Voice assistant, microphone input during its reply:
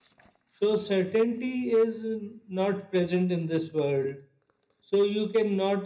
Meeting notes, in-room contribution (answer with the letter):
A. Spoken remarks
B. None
A